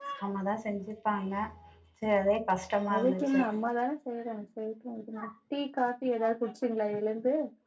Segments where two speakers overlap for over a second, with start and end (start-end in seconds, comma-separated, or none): none